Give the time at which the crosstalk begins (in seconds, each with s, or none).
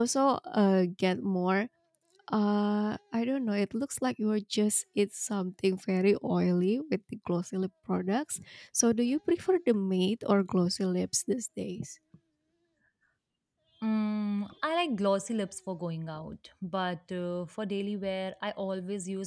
none